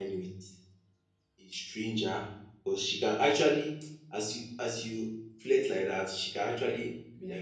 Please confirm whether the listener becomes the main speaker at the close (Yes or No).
No